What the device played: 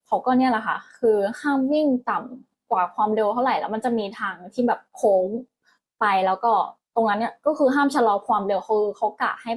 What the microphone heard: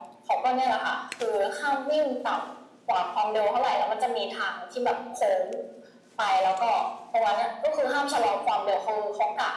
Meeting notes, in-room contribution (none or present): none